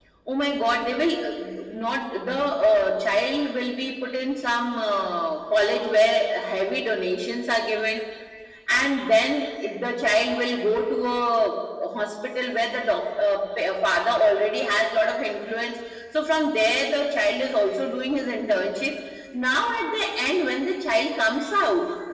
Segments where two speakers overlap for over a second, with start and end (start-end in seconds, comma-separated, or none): none